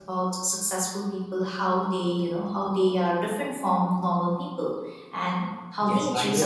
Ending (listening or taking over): taking over